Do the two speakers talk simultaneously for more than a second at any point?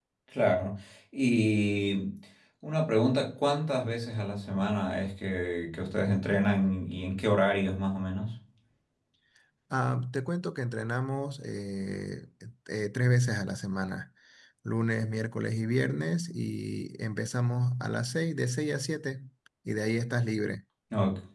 No

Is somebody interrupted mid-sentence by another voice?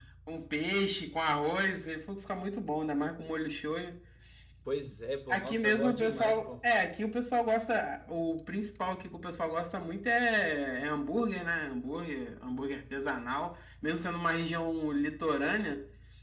Yes, from 5.3 s

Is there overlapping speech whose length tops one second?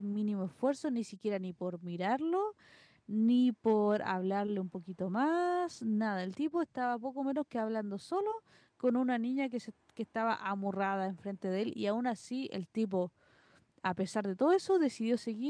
No

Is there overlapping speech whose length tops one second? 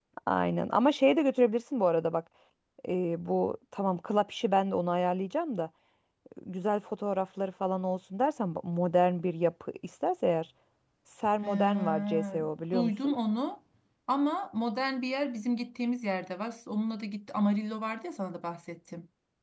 Yes, from 11.4 s

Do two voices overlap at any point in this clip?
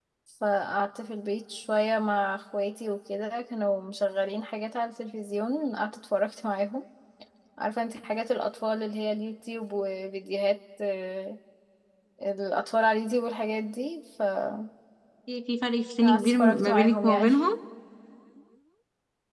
Yes, from 16.0 s

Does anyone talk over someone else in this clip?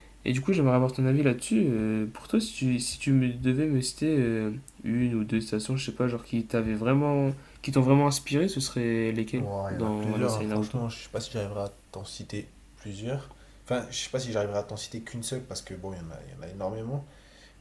Yes, from 9.3 s

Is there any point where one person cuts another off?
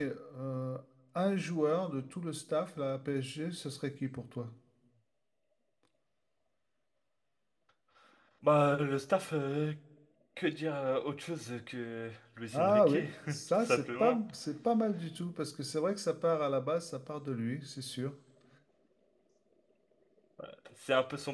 Yes, from 12.5 s

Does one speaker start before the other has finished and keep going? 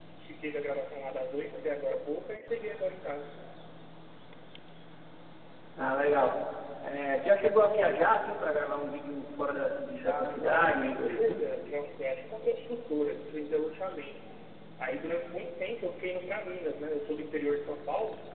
Yes, from 9.9 s

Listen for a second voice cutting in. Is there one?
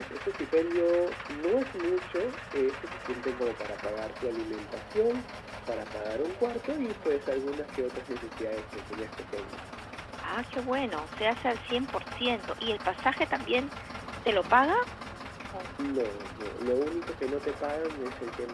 No

